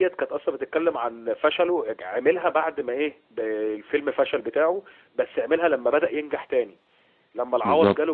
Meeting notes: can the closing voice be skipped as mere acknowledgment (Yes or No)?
Yes